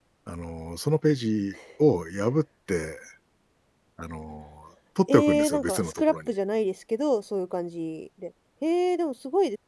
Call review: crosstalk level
present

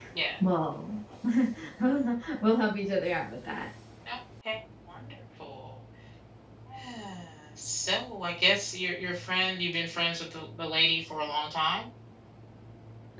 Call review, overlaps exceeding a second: none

